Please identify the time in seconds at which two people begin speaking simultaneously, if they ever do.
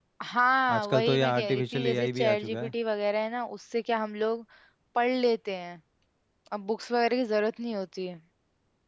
0.7 s

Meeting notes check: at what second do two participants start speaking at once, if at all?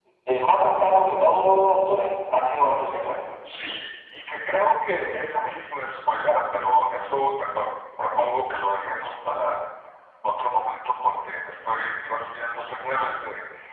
none

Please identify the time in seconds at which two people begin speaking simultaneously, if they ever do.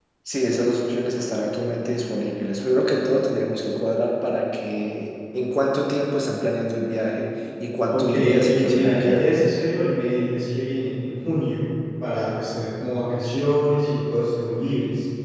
7.9 s

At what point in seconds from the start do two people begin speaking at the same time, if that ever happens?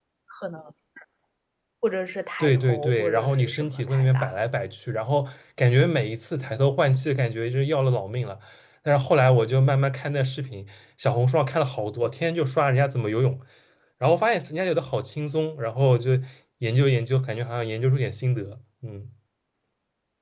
2.4 s

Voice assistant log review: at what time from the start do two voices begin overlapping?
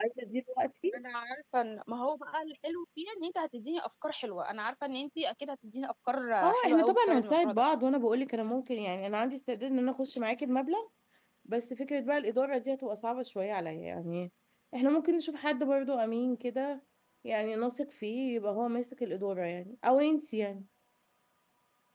6.4 s

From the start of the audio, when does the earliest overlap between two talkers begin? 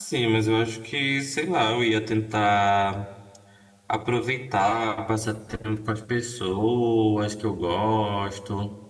none

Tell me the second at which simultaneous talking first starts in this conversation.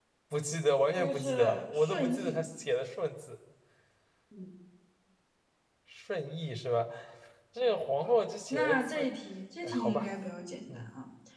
1.0 s

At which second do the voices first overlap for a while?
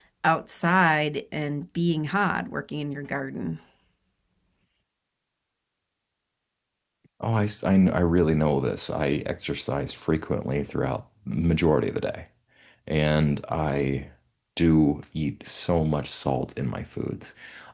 none

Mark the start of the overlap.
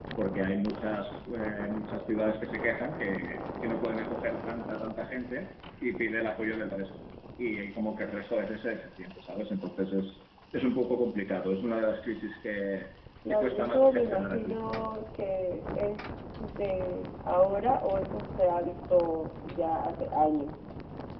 13.3 s

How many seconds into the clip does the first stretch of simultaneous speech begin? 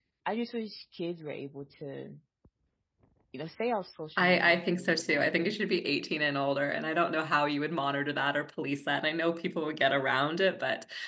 4.2 s

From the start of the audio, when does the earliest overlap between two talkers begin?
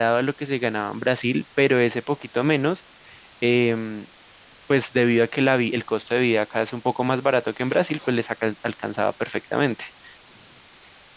none

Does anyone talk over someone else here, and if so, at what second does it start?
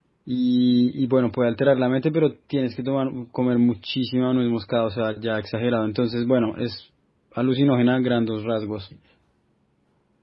none

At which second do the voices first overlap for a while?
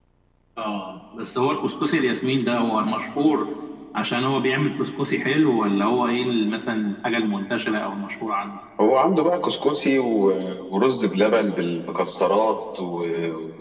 none

